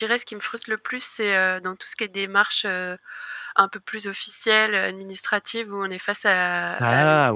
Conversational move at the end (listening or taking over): listening